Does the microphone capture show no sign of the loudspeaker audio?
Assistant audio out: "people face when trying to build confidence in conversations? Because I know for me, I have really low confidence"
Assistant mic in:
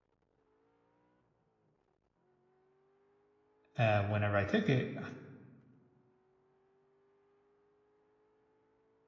Yes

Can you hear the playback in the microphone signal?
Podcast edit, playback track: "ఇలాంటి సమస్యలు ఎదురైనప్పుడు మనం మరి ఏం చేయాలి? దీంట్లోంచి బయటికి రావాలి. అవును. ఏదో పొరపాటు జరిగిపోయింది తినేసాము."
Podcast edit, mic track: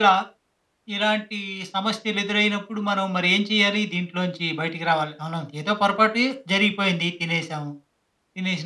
Yes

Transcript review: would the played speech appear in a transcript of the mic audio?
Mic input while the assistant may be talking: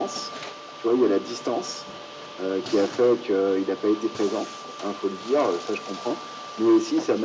Yes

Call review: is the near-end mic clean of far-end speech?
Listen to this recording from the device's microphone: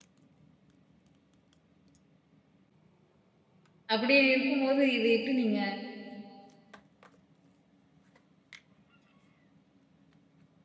Yes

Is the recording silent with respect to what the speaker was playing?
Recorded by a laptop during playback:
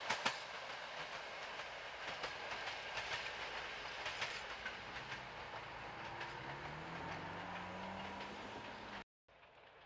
Yes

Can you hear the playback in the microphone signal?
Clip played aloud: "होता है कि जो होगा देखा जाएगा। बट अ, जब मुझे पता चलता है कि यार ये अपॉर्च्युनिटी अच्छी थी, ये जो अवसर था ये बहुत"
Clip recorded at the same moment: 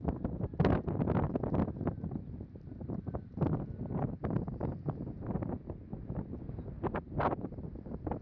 No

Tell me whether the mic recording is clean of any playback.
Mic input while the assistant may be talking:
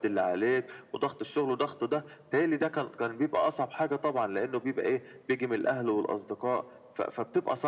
No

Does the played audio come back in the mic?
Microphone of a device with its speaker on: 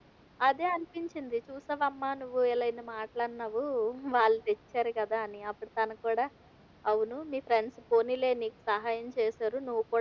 Yes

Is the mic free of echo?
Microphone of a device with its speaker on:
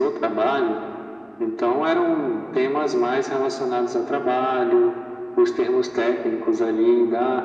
No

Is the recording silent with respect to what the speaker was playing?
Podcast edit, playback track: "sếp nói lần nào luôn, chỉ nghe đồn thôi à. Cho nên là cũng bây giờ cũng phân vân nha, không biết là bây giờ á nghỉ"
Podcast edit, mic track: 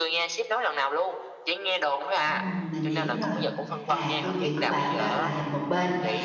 No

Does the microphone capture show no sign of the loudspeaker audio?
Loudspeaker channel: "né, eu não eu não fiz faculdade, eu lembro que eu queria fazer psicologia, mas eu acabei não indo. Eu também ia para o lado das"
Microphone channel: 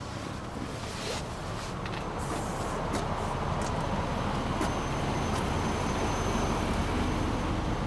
Yes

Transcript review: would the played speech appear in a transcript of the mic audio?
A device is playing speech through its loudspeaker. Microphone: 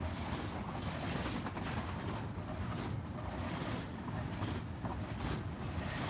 No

